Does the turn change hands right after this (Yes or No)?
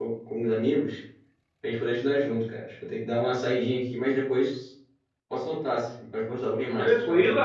Yes